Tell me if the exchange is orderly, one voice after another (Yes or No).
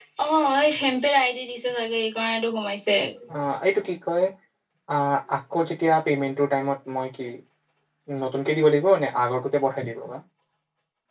Yes